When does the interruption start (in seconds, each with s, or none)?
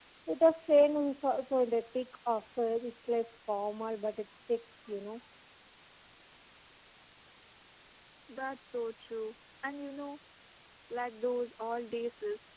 none